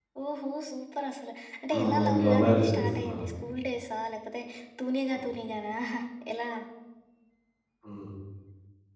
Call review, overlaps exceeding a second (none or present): present